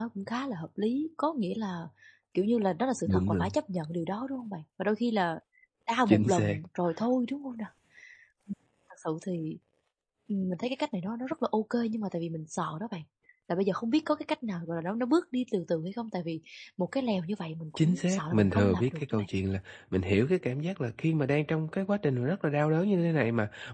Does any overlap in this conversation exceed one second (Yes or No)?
Yes